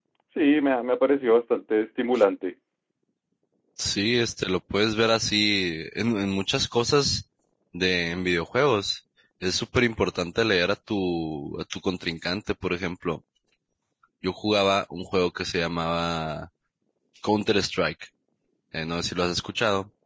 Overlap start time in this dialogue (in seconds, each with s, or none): none